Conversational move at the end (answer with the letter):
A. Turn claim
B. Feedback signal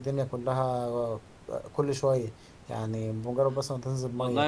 A